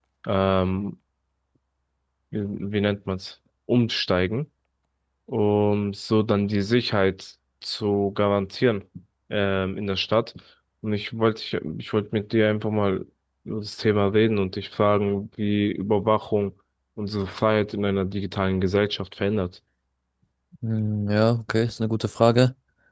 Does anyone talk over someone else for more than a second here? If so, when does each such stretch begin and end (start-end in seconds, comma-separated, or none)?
none